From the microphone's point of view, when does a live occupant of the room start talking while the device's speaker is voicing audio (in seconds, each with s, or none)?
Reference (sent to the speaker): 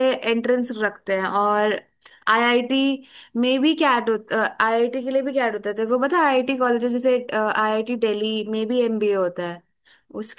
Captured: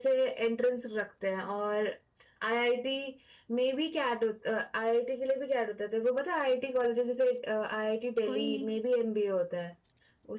8.2 s